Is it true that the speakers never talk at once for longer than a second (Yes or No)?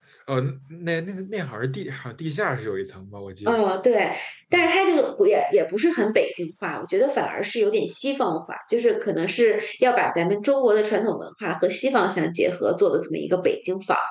Yes